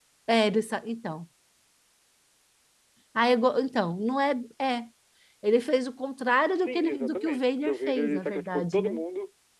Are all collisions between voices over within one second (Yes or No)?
No